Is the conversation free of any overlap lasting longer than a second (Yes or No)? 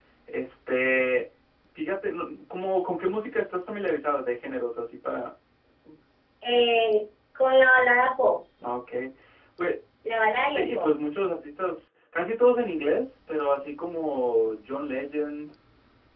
Yes